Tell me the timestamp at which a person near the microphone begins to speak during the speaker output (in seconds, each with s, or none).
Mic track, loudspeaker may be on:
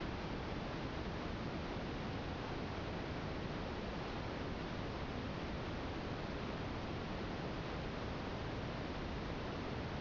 none